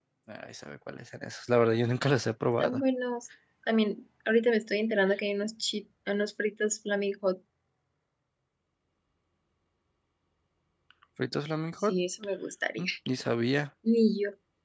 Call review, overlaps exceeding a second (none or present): none